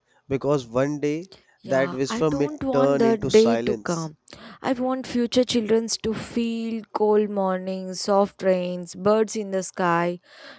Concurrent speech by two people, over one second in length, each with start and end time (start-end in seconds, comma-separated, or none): 1.6-4.0